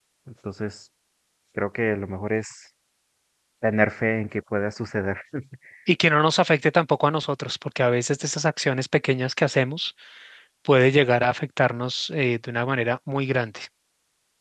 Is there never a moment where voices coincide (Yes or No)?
Yes